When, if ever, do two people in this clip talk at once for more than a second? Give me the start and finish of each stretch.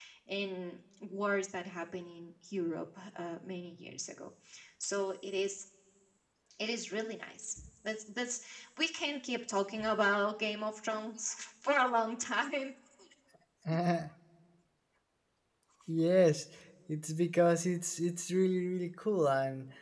none

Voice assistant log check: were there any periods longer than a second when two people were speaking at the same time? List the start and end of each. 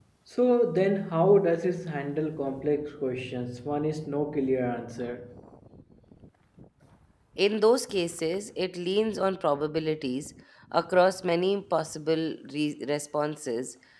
none

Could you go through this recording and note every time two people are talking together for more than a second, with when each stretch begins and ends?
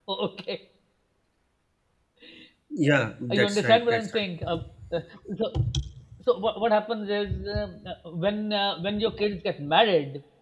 2.9-4.5

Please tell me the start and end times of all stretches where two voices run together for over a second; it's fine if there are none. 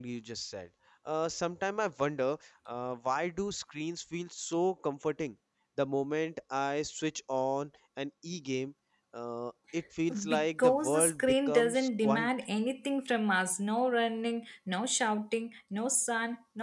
10.3-12.3

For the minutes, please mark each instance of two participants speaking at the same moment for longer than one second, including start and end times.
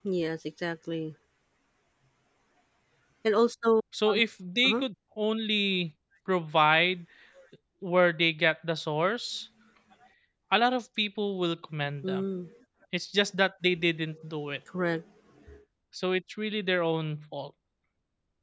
none

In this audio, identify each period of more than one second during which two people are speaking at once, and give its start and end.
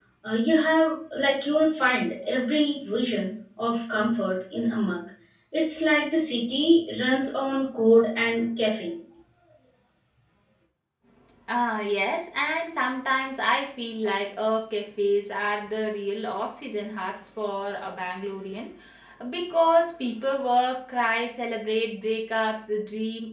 none

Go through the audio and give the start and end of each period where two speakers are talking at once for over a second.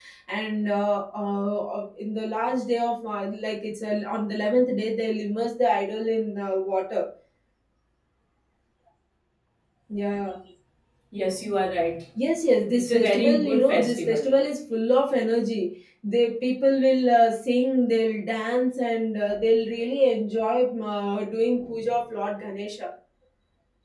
12.7-14.3

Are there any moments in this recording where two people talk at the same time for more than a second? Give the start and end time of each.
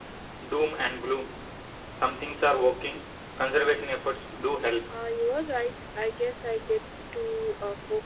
none

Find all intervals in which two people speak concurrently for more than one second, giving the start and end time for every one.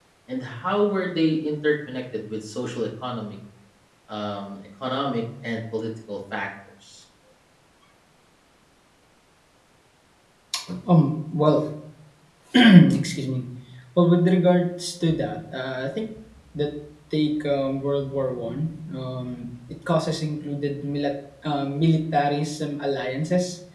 none

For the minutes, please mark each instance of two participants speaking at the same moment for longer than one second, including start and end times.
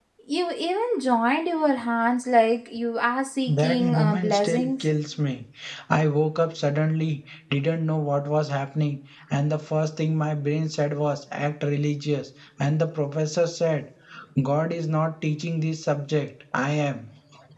3.5-4.9

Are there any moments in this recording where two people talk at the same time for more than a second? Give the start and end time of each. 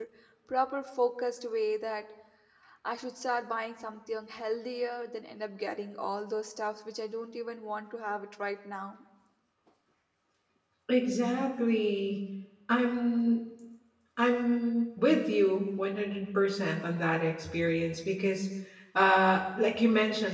none

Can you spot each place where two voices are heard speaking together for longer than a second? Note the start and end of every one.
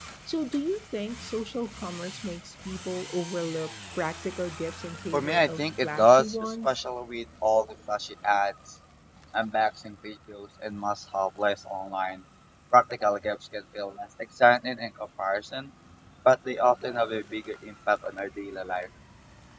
5.1-6.8

